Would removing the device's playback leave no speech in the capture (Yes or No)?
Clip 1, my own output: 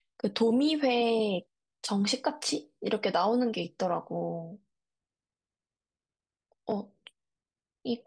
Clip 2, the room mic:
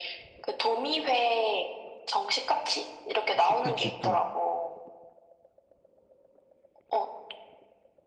No